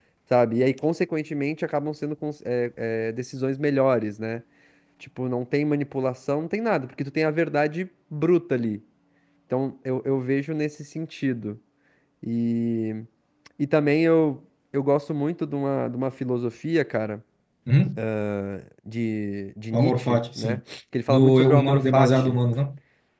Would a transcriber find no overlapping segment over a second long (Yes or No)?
No